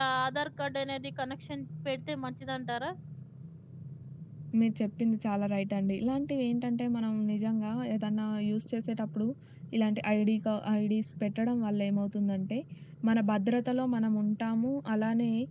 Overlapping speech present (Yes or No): No